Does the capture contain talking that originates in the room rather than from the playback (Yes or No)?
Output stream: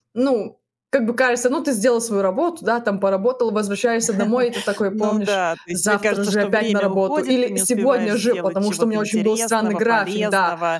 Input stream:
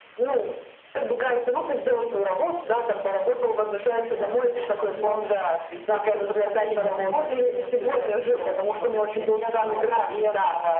Yes